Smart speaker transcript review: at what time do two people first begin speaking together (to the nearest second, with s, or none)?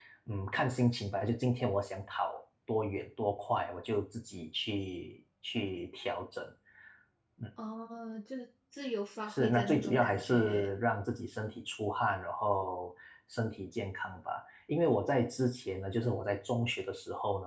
9 s